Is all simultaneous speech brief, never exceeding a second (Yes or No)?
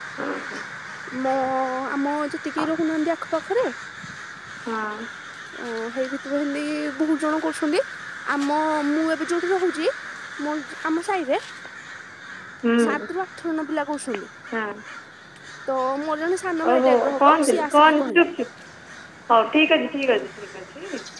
No